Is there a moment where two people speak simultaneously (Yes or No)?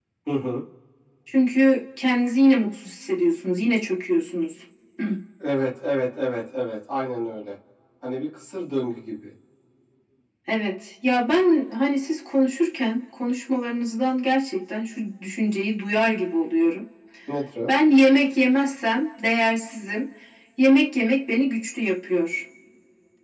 No